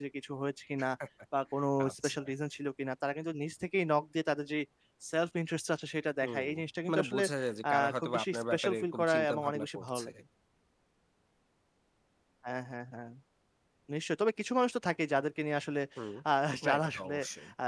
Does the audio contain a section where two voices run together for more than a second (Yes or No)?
Yes